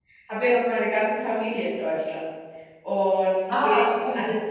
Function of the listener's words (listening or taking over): listening